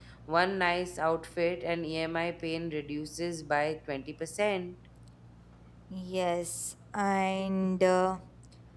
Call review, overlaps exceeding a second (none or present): none